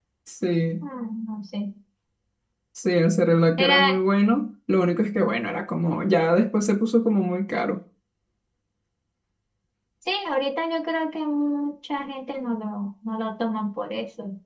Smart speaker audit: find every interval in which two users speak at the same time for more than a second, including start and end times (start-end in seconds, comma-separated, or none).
none